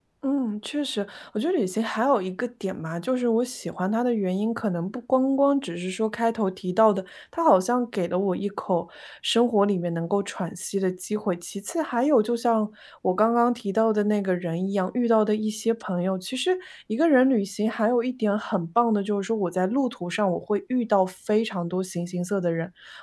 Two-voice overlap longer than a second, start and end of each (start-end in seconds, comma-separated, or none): none